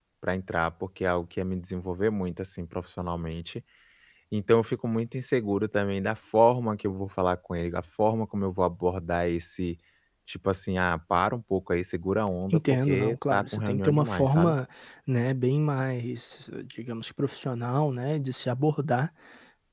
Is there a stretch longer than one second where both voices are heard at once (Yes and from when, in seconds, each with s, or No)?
Yes, from 12.5 s